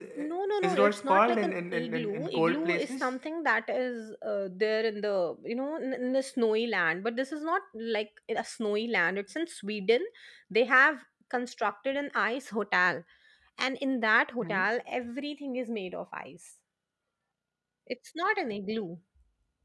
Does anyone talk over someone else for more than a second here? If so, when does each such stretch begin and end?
0.6-3.1

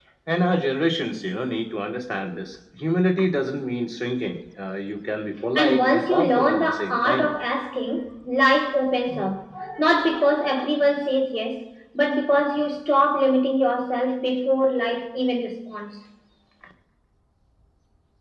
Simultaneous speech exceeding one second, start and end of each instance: 5.6-7.3

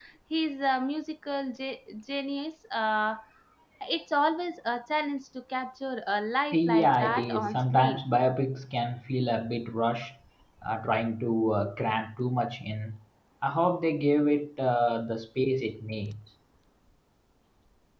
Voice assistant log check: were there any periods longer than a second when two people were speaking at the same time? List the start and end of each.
6.5-8.0

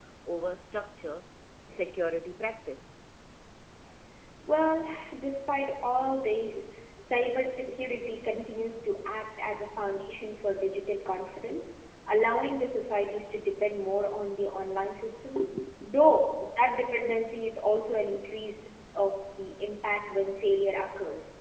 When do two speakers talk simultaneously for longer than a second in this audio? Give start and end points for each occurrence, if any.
none

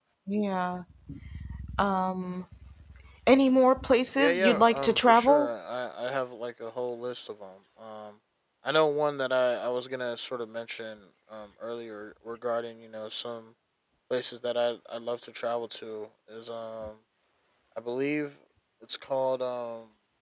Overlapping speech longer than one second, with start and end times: 4.2-5.5

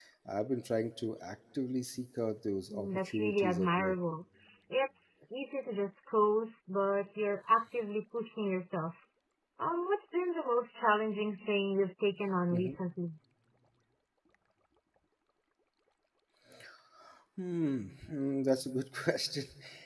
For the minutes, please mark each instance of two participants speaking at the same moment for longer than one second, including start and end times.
2.7-4.0

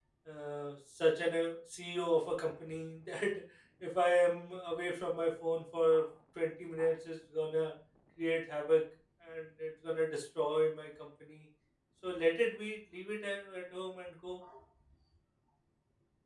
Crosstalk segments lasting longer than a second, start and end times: none

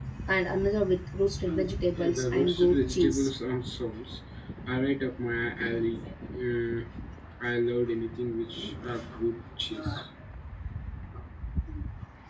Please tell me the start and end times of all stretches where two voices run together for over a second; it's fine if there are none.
1.9-3.3

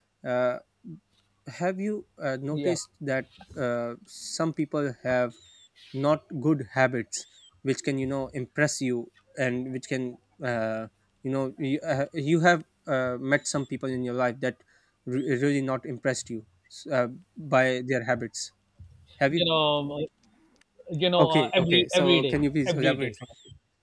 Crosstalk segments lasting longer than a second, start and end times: 21.2-23.1

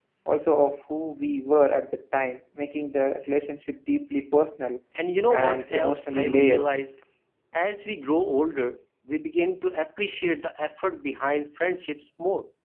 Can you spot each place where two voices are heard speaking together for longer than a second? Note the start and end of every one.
5.3-6.7

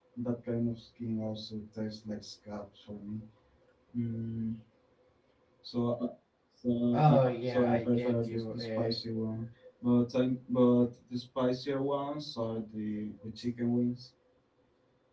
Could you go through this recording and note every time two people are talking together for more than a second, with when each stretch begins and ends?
7.1-8.9

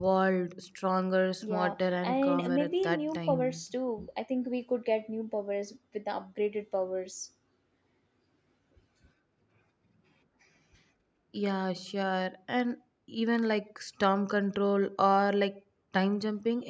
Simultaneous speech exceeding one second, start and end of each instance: 1.4-3.6

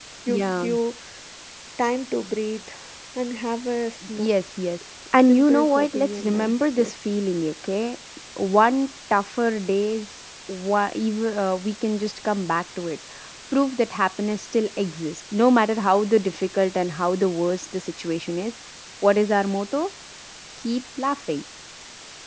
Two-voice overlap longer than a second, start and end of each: 5.3-6.9

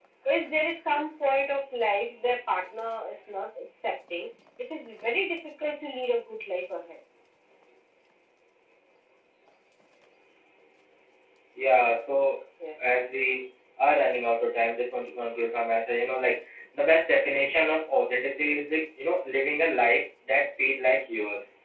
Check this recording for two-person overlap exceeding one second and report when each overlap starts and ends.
none

